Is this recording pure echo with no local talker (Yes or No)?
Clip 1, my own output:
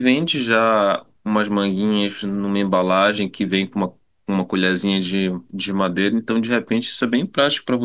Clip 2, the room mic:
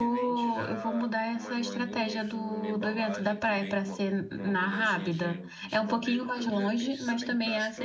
No